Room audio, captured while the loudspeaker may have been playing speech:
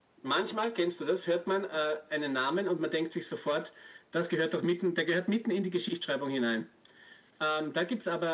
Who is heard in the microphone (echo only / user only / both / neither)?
echo only